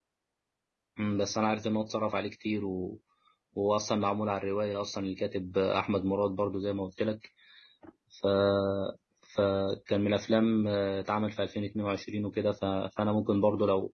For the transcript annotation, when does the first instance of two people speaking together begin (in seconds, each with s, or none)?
none